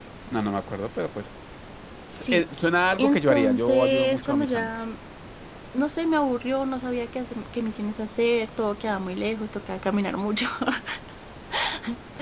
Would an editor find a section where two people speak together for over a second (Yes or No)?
Yes